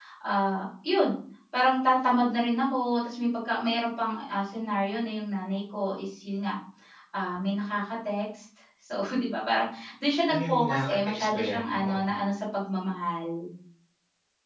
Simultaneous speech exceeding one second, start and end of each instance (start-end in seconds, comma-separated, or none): 10.3-12.0